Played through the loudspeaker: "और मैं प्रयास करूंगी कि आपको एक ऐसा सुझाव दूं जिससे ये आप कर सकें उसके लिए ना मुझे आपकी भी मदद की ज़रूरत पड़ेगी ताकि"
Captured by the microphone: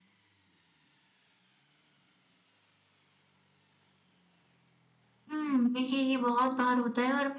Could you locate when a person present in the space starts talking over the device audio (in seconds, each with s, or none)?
5.3 s